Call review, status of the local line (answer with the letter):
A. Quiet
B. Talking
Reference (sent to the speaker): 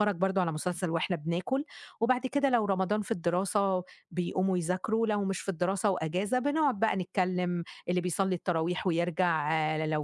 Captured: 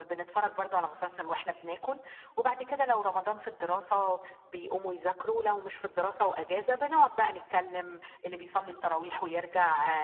A